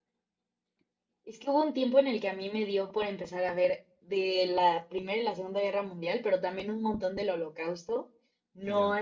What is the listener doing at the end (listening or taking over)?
listening